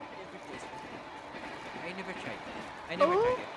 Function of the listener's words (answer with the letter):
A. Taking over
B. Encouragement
A